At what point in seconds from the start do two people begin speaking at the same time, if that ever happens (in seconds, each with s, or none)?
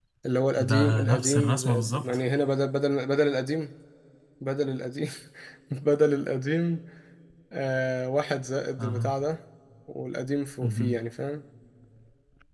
0.6 s